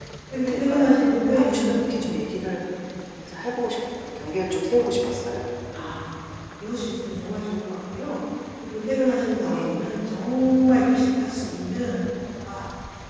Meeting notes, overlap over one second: present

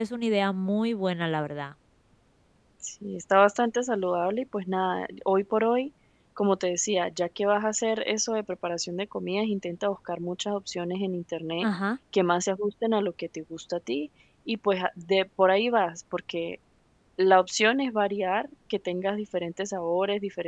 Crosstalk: none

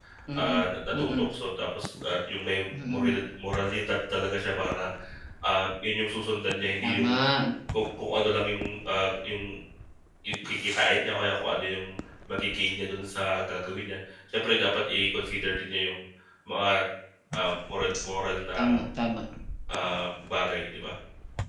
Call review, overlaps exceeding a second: none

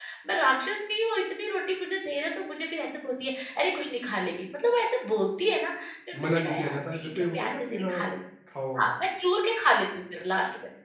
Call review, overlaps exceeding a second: present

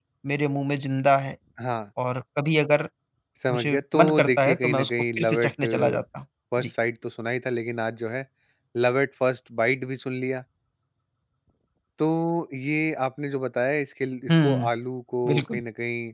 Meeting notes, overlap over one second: present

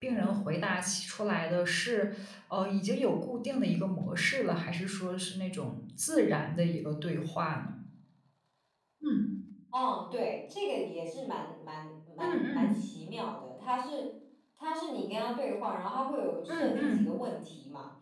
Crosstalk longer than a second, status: none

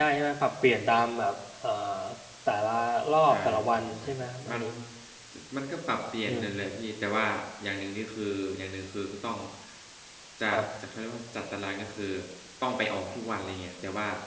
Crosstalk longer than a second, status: present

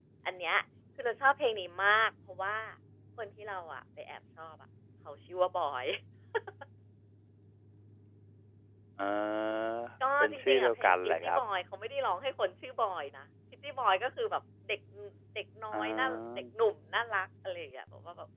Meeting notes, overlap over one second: present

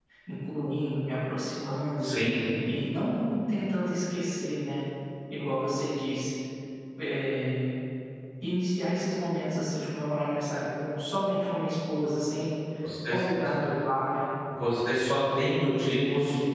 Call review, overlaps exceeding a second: none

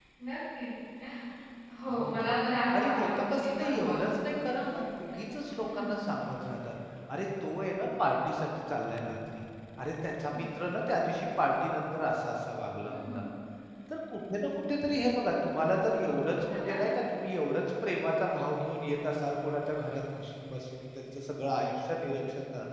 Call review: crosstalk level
present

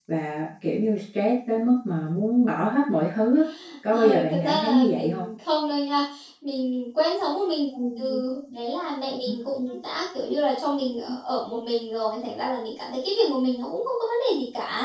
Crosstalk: present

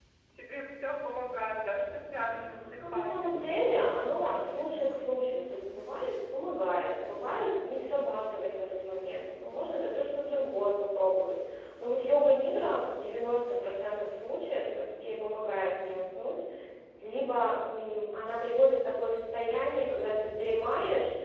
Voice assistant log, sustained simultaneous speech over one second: present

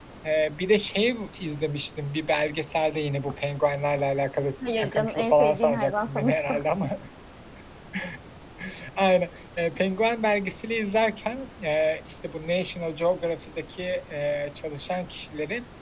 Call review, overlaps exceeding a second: present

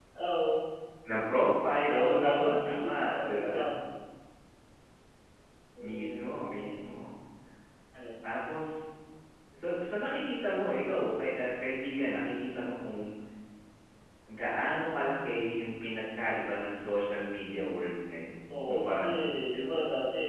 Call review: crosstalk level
present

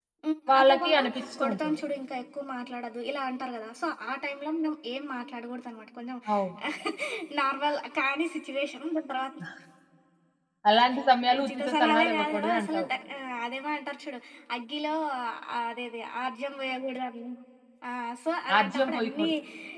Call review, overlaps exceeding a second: present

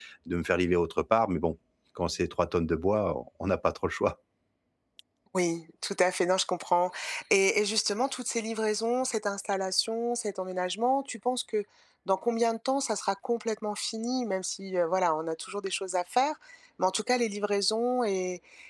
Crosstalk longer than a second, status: none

